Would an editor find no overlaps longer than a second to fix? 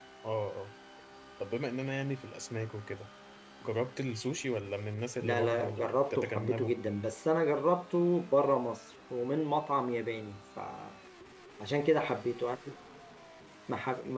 No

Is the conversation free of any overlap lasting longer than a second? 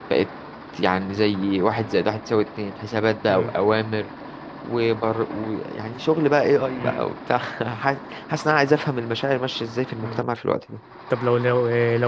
Yes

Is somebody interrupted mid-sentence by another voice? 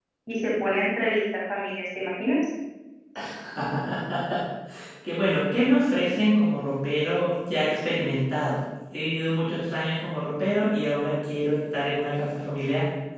No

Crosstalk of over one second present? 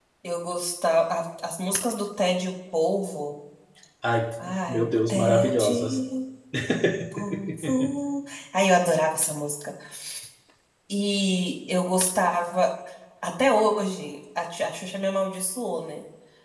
Yes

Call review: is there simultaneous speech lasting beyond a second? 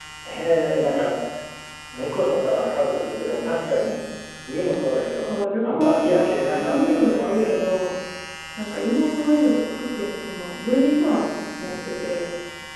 Yes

